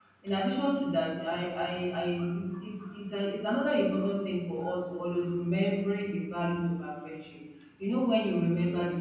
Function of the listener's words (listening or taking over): listening